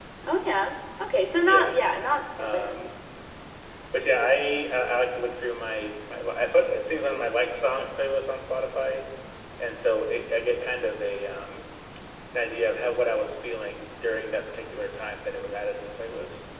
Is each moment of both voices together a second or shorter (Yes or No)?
Yes